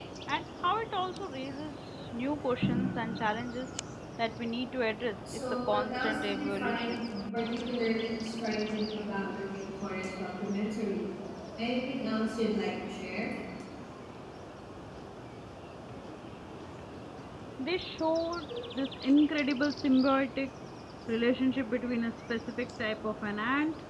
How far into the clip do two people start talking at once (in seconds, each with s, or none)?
5.3 s